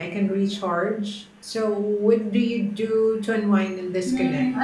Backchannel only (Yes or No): No